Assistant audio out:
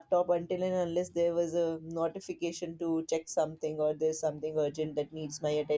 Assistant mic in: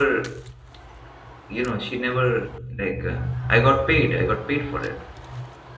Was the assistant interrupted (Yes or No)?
Yes